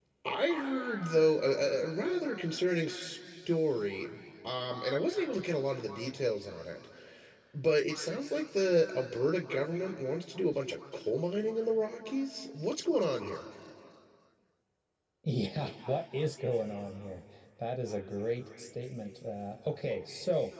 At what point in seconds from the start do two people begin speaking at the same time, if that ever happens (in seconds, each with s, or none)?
none